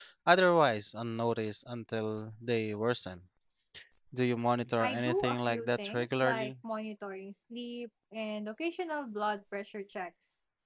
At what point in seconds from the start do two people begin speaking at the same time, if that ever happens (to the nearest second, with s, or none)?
5 s